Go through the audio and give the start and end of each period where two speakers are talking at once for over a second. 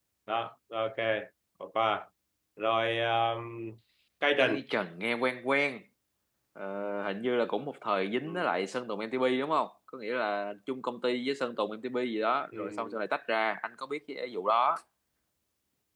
none

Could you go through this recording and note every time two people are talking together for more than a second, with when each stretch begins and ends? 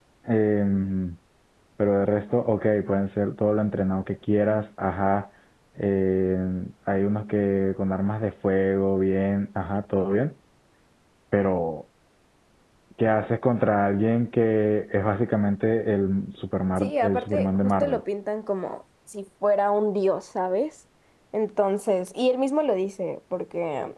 16.8-18.0

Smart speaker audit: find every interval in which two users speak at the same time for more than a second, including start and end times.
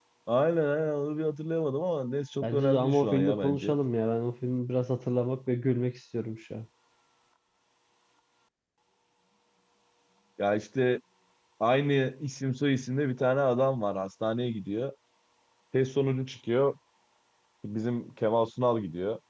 2.4-3.7

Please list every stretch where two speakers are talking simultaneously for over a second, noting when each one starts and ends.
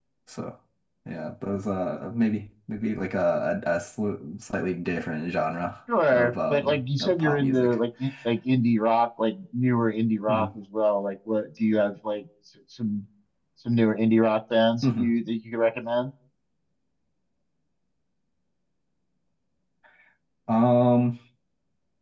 6.1-7.8

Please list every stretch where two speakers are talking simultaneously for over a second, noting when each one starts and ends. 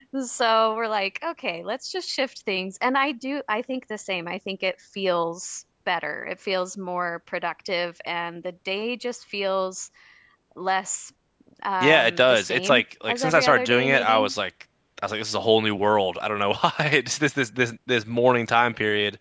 11.8-14.3

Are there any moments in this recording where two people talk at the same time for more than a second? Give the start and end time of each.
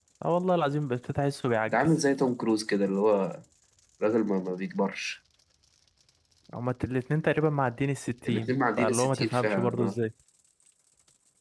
8.3-10.0

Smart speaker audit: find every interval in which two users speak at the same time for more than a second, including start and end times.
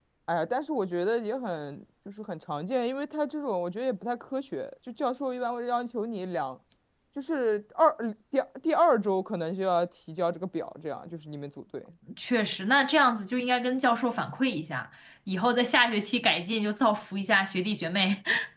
none

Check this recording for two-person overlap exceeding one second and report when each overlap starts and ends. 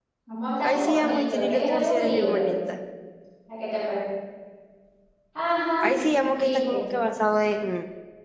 0.6-2.5

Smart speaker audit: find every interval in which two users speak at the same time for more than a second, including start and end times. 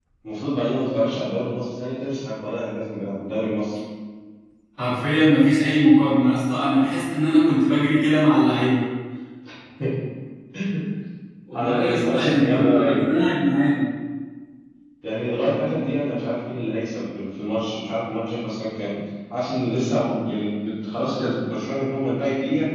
11.5-13.0

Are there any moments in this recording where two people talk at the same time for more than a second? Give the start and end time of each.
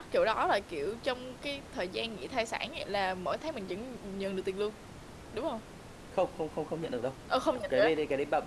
none

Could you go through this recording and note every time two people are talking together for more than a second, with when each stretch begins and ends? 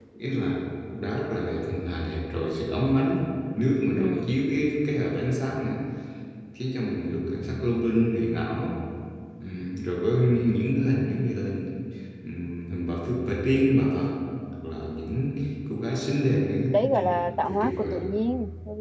16.7-18.0

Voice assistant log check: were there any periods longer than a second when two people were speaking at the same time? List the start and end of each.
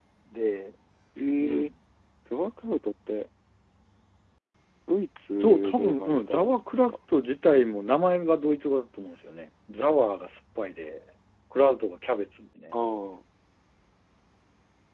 5.4-6.9

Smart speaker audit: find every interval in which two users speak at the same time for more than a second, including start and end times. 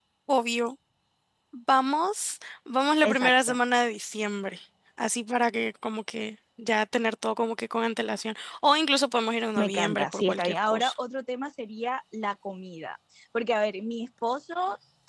9.6-10.9

